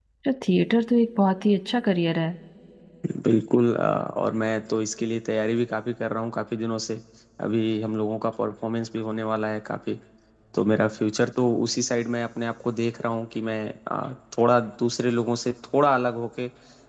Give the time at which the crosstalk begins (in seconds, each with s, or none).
none